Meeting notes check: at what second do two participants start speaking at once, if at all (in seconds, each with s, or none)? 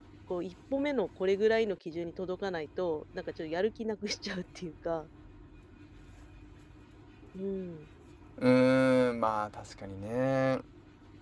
none